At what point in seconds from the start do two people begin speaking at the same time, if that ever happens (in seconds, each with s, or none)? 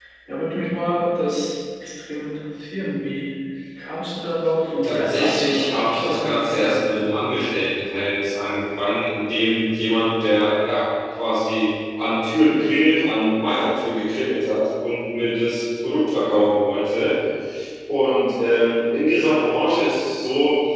4.8 s